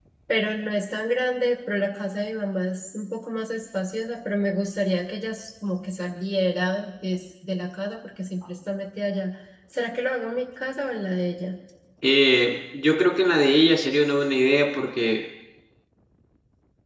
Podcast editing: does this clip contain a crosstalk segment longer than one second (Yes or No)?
No